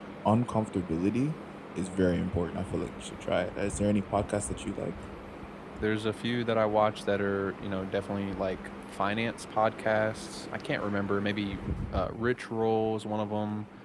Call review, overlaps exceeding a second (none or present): none